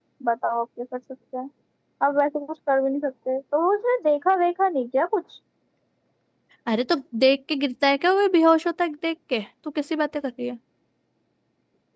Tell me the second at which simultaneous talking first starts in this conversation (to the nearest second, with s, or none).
none